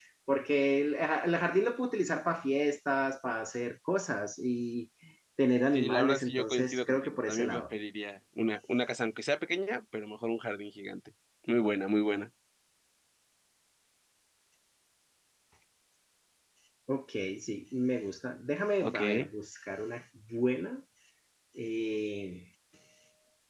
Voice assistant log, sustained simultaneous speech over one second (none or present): present